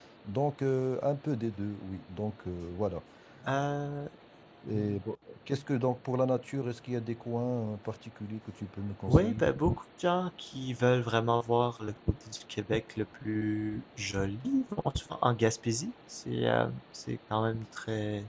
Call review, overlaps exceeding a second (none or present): none